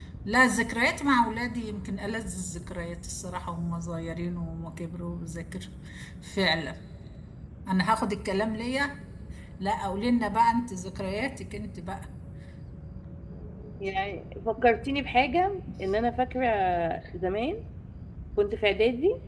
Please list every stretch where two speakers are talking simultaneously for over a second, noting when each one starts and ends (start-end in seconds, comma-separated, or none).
none